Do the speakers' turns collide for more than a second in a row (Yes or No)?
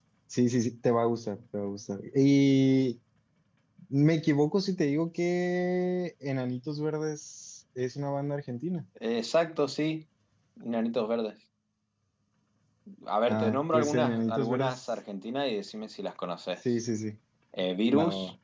Yes